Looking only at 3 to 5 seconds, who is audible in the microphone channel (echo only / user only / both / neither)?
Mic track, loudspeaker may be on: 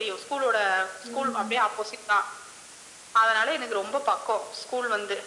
echo only